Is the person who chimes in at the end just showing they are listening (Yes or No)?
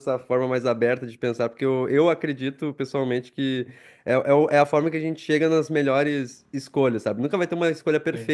Yes